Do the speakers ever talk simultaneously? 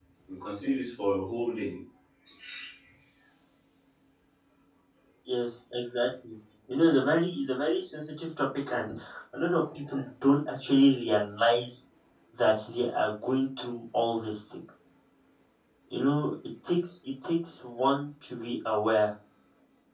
No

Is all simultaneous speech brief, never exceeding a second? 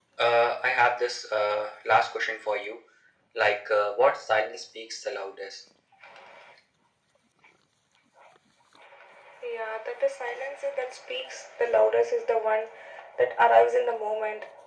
Yes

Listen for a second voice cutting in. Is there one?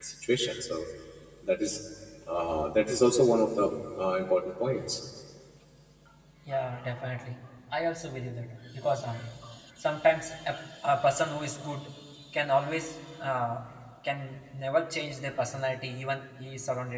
No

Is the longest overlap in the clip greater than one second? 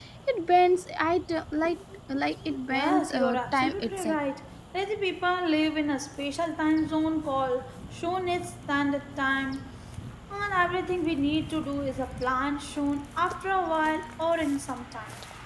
Yes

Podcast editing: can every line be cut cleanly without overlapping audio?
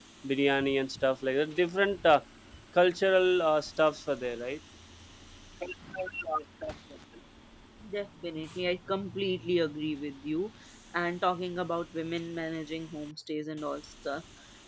Yes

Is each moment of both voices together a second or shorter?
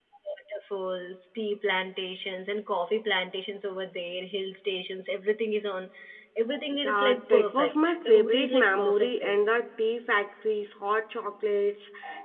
No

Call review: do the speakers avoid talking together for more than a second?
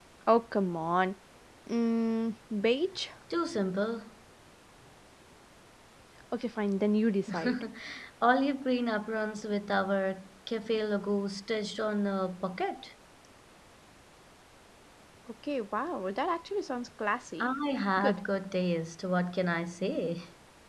Yes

